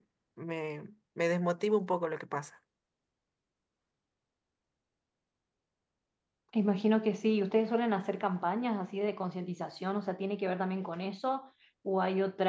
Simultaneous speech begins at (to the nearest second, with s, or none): none